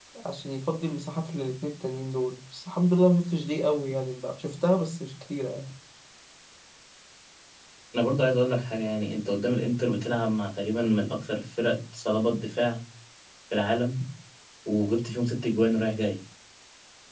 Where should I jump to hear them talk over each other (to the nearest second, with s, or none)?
none